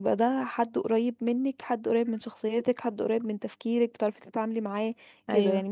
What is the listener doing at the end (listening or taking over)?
listening